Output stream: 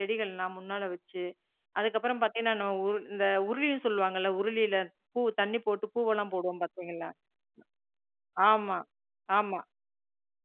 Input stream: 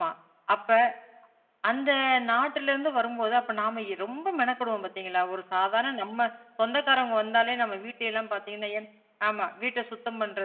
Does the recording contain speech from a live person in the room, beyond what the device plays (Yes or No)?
Yes